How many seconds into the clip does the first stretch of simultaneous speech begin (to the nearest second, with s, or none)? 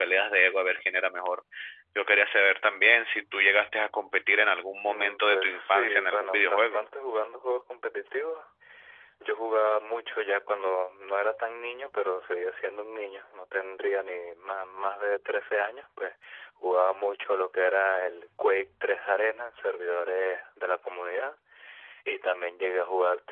5 s